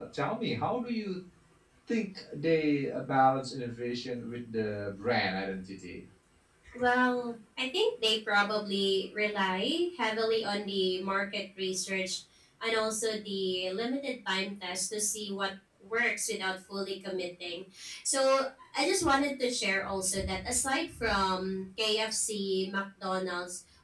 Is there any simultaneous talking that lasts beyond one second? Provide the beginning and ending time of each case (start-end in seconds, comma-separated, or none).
none